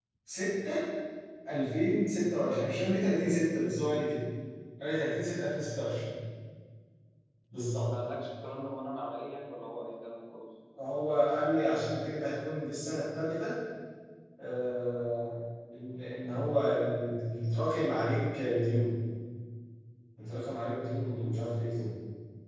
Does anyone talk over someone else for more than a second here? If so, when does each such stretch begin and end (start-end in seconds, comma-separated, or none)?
none